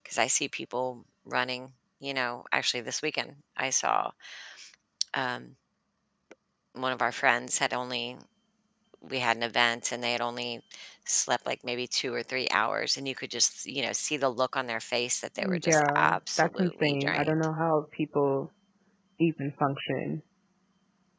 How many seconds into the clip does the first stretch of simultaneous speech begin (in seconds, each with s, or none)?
15.4 s